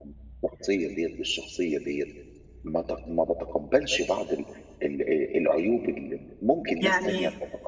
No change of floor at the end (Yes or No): Yes